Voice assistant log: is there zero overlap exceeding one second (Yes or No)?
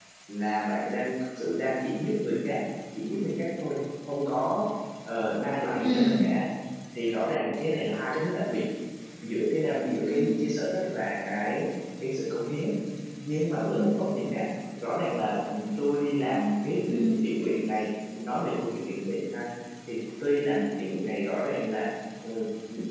Yes